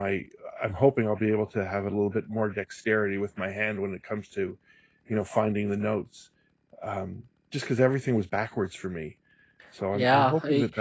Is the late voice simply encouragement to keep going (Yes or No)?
No